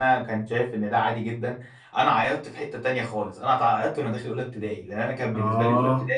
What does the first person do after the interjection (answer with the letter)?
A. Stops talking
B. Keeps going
B